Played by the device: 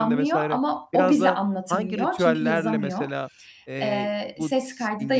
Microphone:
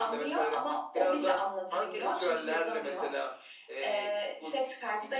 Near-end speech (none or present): none